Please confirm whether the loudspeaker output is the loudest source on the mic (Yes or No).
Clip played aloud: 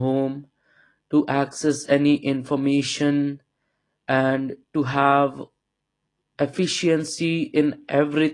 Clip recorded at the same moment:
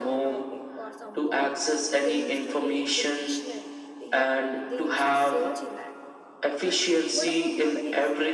Yes